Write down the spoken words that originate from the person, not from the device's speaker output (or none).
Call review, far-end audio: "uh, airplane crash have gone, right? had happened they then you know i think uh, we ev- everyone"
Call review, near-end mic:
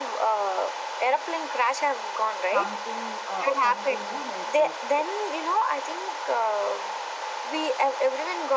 something uh, something you know like uh,